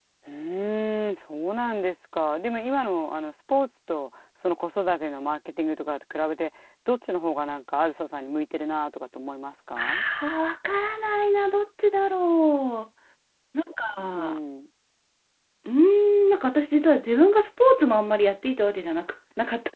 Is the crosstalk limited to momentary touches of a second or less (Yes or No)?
Yes